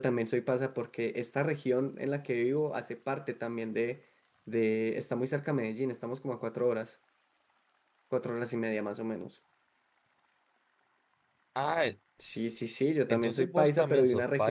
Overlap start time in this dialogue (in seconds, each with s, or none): 13.1 s